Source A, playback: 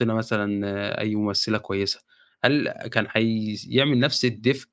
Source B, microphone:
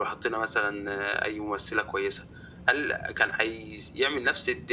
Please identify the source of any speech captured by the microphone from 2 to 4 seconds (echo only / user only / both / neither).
echo only